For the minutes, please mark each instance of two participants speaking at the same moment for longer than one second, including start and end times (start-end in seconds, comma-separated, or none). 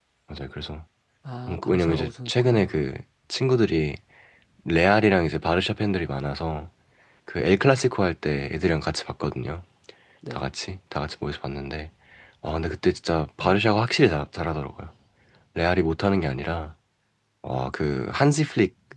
1.5-2.8